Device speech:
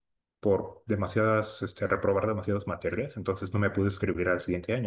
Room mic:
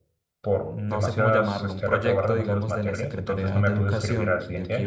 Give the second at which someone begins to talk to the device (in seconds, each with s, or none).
0.6 s